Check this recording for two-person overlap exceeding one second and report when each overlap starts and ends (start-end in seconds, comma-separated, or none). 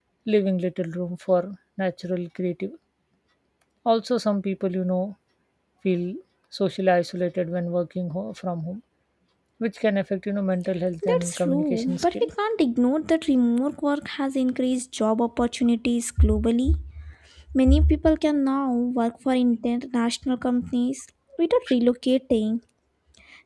11.1-12.3